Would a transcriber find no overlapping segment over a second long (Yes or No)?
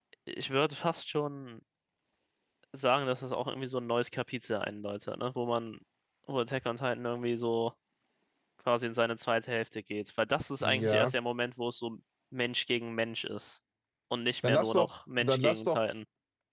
No